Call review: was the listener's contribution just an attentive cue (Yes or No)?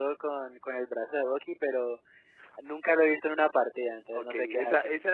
No